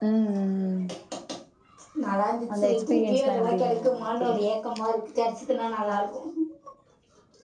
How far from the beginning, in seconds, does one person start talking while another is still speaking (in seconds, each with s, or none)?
2.5 s